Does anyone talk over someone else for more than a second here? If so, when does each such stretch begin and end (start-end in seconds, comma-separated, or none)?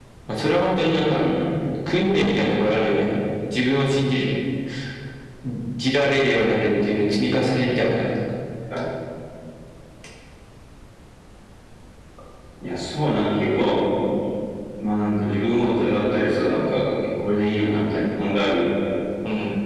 none